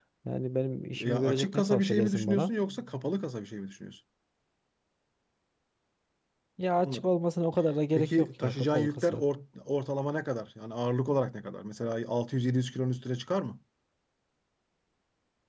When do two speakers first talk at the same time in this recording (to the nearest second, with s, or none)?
1 s